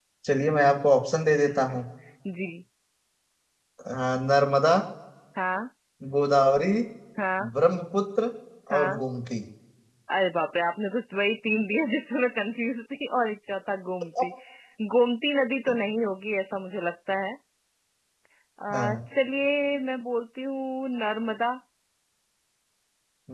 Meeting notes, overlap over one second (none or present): none